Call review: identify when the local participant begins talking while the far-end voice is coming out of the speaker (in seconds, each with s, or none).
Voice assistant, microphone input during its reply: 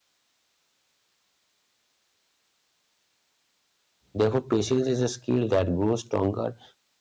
4.1 s